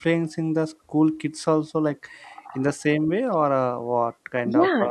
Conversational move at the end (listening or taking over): taking over